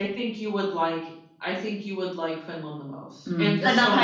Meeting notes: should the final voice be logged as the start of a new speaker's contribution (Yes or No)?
Yes